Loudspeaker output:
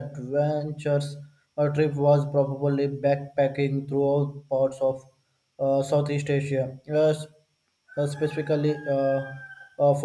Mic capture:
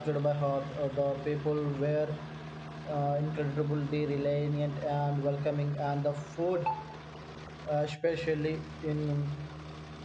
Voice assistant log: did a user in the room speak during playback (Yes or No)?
Yes